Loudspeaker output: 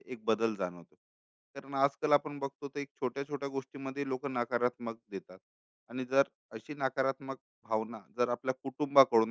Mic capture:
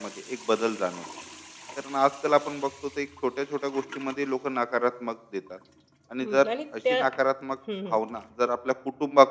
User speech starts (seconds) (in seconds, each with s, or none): 6.2 s